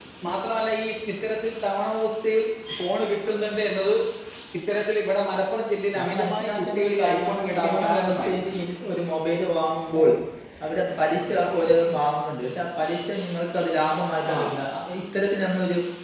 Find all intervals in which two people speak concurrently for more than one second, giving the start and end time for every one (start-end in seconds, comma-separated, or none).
6.0-8.3